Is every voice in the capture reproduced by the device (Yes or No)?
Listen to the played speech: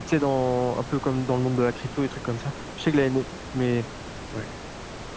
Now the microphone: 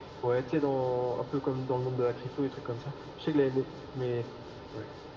Yes